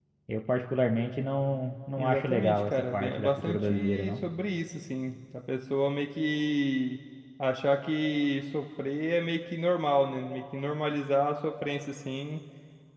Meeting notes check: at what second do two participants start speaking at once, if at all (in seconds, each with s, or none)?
2.0 s